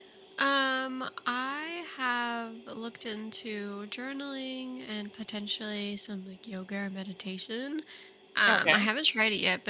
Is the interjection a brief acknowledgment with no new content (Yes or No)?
Yes